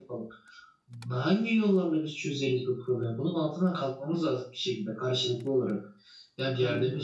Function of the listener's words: listening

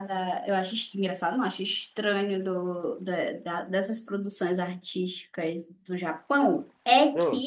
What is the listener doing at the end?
listening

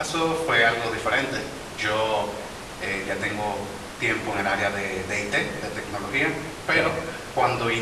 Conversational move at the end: listening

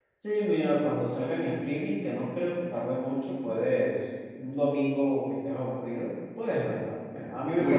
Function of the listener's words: taking over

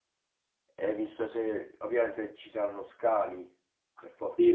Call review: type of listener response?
taking over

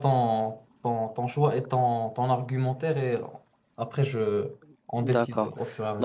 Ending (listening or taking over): taking over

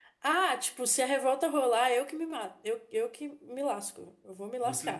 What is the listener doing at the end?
taking over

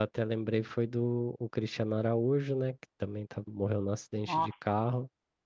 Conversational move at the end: listening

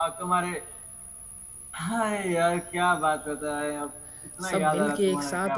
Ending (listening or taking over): taking over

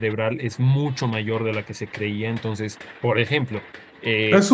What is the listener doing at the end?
taking over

